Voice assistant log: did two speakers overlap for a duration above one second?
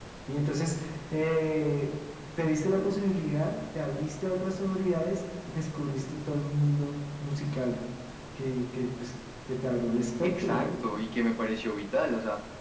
No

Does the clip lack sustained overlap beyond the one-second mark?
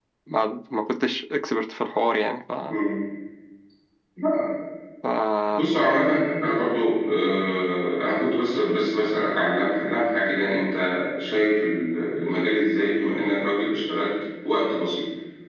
Yes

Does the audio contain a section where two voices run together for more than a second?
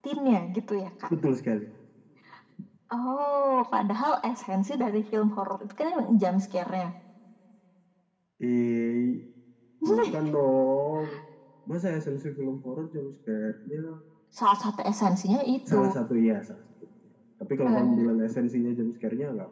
No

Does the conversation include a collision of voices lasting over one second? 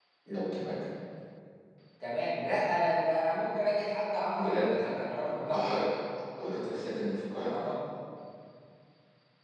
No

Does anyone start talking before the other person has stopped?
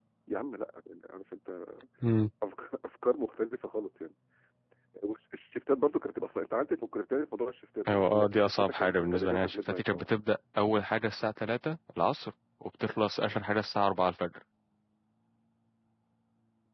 Yes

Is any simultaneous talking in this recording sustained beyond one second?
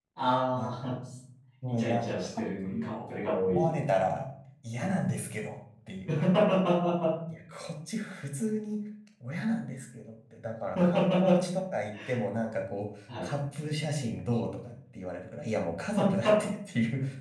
Yes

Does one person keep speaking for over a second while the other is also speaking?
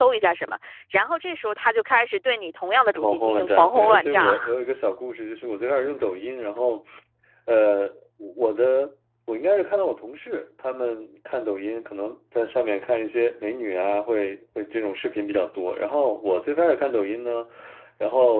Yes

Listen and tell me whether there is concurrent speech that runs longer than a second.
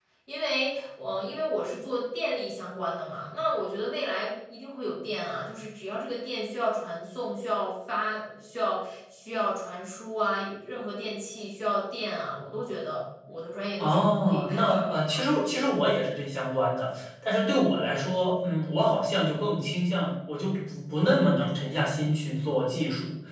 Yes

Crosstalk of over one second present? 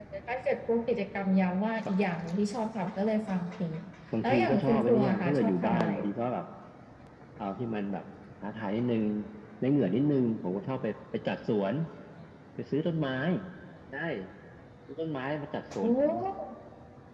Yes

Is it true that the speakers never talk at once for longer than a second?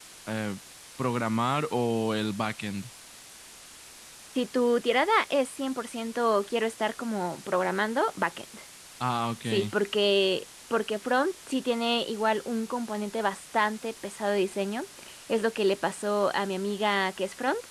Yes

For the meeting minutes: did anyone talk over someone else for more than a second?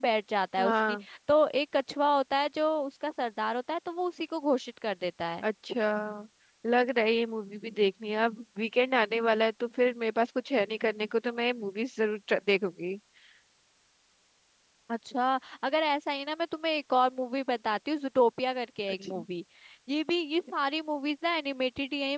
No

